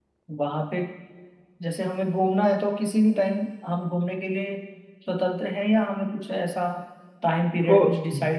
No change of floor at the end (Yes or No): Yes